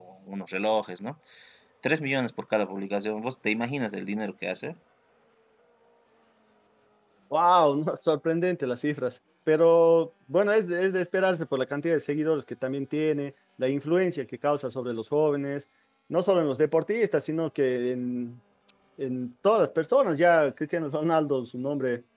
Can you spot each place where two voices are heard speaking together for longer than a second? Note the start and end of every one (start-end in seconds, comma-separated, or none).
none